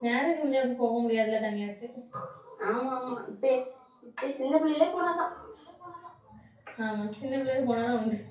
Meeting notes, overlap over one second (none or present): none